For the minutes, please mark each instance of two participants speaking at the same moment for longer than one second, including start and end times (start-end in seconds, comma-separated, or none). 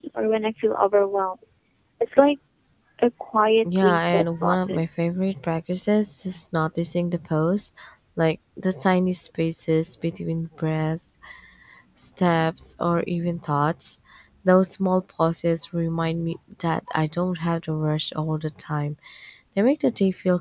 3.6-4.8